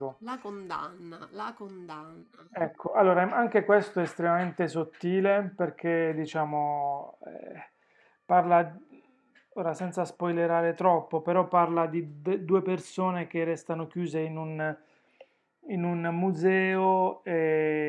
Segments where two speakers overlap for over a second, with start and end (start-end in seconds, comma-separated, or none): none